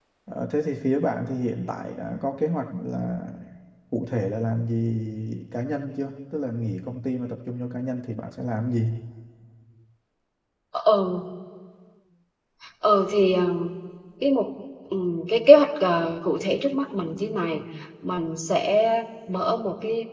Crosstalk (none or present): none